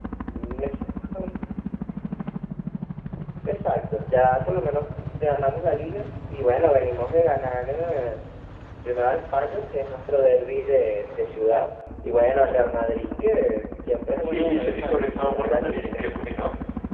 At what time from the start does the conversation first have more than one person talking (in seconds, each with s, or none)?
14.2 s